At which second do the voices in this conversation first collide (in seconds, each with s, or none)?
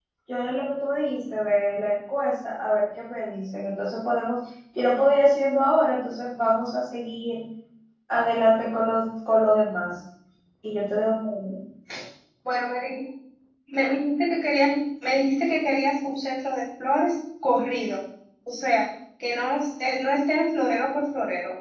none